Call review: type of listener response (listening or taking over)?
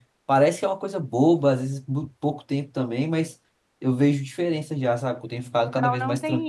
taking over